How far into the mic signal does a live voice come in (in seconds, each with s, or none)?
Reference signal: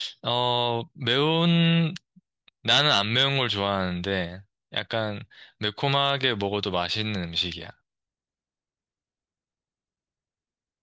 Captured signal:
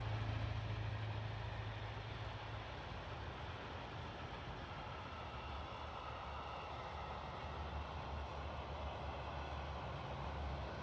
none